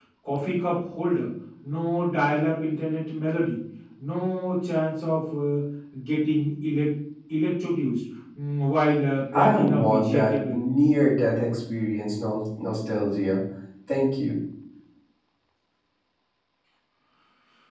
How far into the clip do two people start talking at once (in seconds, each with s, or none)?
9.3 s